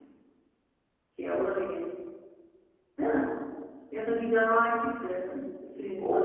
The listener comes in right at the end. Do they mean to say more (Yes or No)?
Yes